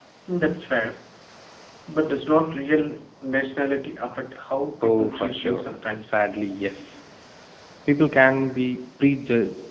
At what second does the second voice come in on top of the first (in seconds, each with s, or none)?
4.8 s